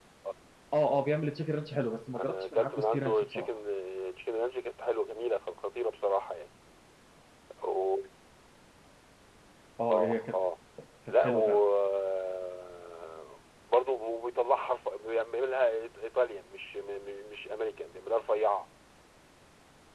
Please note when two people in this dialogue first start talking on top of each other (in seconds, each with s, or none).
2.2 s